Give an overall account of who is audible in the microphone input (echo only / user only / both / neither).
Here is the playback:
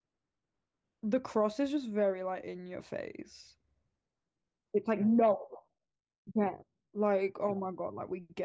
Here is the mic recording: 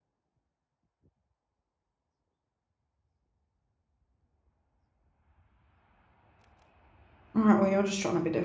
user only